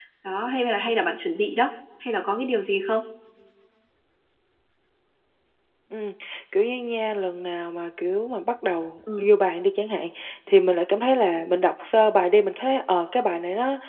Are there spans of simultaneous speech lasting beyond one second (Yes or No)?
No